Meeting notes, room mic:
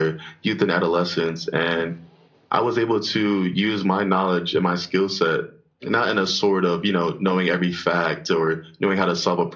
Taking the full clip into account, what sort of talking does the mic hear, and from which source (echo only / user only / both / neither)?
echo only